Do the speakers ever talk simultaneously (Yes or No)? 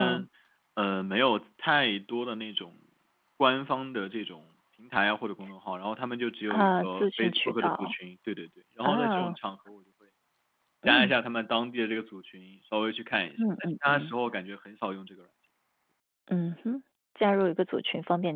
Yes